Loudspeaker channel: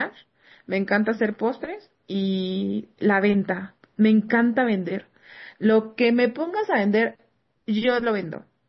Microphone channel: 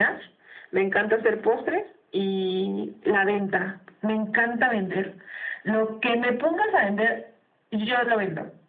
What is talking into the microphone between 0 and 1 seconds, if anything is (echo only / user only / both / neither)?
echo only